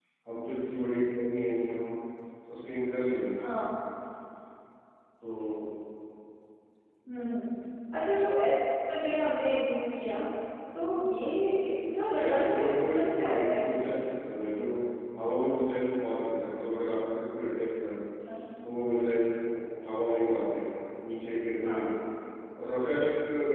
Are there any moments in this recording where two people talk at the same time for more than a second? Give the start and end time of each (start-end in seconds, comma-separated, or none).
12.2-13.9